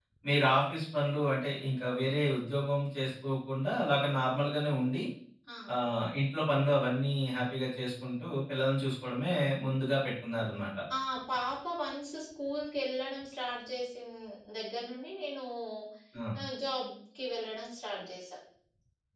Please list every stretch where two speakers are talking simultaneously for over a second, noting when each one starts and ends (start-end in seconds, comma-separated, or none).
none